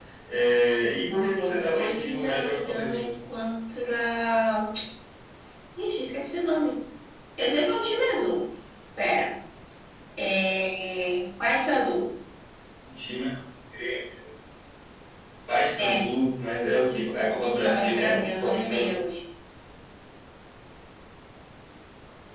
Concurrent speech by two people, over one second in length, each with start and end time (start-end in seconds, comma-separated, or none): 1.7-3.1, 17.6-18.9